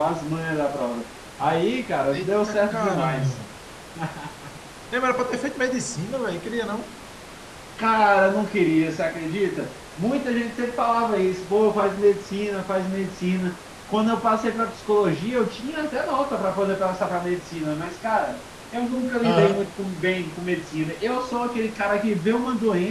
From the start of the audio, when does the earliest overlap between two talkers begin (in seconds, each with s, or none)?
2.1 s